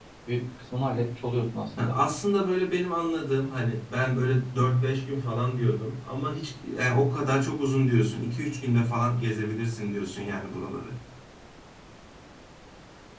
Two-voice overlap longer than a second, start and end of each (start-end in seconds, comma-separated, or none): none